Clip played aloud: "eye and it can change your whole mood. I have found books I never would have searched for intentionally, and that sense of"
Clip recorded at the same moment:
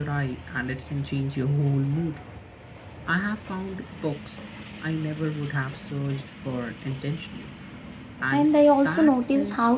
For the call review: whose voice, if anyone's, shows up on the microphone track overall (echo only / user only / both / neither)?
both